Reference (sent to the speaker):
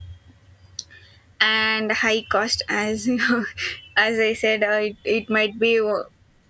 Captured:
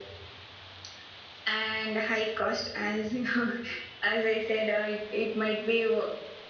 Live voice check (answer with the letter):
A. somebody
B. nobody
B